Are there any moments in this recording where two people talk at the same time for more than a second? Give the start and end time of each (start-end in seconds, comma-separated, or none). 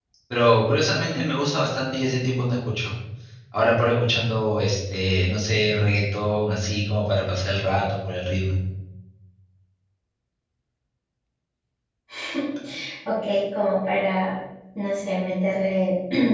none